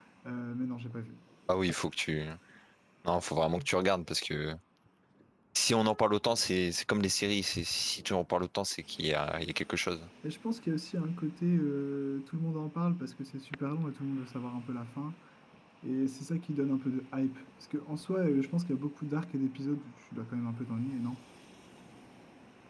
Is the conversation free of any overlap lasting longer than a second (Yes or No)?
Yes